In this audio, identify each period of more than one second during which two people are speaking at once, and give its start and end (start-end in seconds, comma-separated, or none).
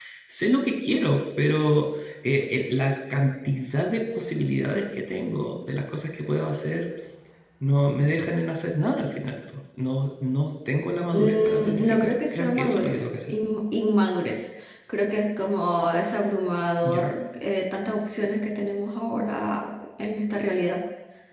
11.1-13.3